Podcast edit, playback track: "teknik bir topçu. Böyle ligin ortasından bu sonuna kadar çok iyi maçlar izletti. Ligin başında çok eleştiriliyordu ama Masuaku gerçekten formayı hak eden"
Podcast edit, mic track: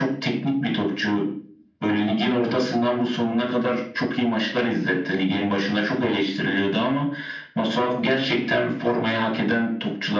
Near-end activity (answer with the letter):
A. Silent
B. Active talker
A